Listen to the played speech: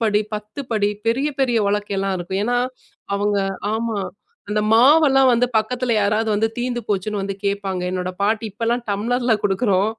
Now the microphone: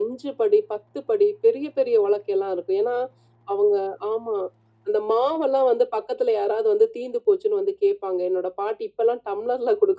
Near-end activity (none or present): none